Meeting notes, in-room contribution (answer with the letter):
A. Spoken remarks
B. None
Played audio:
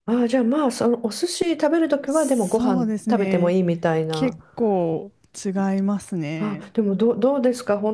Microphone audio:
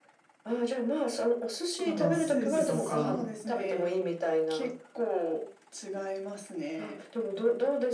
A